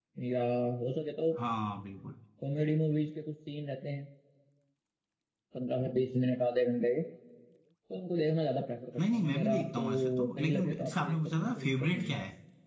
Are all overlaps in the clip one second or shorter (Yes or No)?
No